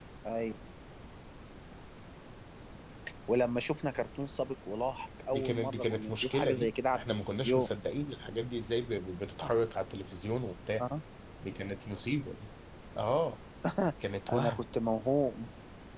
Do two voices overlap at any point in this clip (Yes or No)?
Yes